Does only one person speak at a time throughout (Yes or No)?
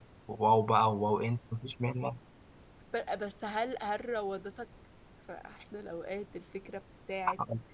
Yes